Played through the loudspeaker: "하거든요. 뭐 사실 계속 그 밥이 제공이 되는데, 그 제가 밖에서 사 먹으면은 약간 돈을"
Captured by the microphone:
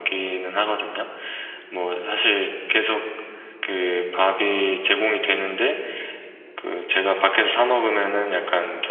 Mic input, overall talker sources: echo only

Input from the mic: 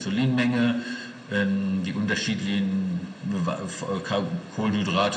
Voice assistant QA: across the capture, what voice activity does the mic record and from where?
echo only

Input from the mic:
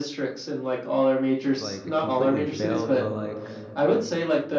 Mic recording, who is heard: both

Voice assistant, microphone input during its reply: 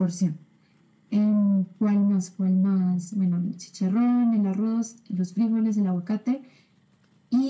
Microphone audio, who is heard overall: echo only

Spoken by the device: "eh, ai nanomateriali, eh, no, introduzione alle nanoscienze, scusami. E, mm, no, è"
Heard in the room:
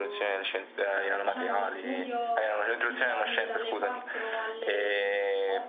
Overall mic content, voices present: both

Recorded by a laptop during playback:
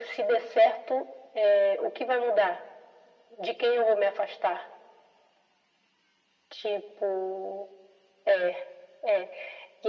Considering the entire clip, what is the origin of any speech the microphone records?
echo only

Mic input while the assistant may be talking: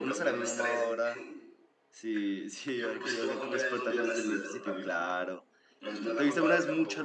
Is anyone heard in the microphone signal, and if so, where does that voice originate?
both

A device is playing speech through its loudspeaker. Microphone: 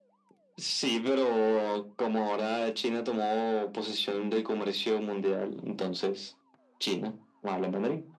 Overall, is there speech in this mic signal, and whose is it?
echo only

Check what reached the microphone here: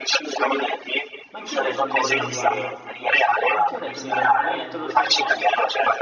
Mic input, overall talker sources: both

